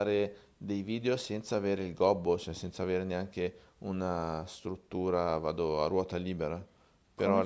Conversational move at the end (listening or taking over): taking over